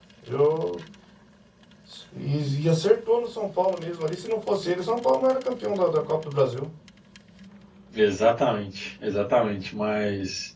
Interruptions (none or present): none